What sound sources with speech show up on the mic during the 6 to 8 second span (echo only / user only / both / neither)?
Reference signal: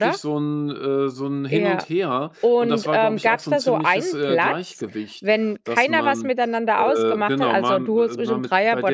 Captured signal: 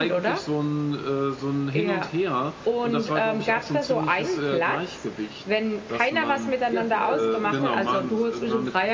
both